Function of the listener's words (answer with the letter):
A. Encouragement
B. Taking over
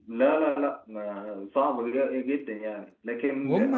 A